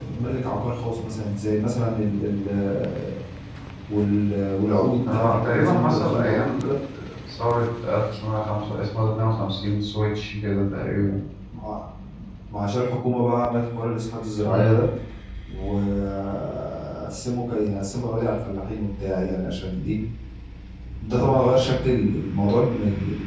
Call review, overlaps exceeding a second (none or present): present